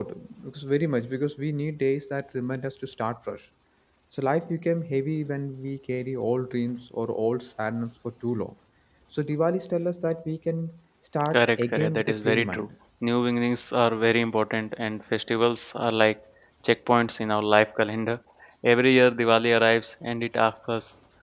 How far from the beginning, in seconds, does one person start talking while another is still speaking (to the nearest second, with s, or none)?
11 s